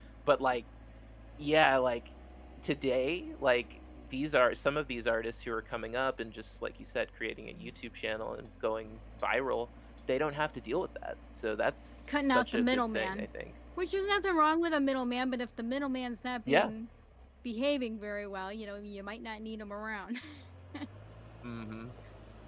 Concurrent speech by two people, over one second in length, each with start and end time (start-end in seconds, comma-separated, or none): 12.1-13.3